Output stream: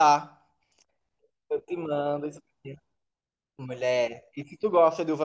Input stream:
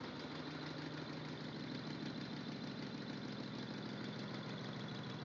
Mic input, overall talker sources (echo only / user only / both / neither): neither